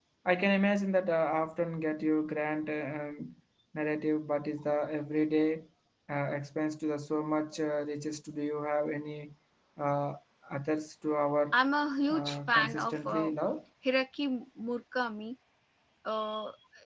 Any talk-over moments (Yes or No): Yes